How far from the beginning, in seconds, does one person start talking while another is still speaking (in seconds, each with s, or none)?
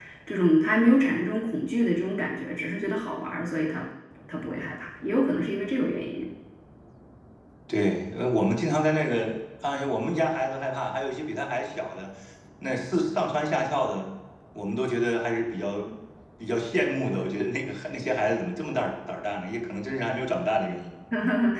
none